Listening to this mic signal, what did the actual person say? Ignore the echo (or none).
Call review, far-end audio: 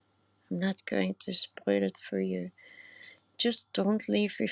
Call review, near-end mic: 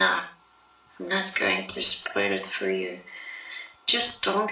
none